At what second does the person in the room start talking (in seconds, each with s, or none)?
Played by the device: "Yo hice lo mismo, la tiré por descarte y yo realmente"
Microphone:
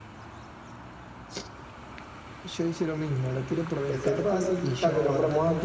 3.9 s